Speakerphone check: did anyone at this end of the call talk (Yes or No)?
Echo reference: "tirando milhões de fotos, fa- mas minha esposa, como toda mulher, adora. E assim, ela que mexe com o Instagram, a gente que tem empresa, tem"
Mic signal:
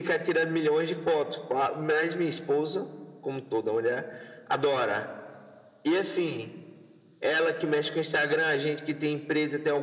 No